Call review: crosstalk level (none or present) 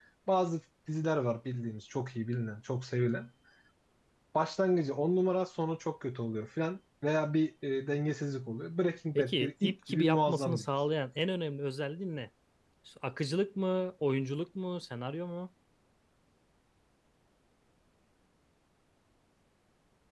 present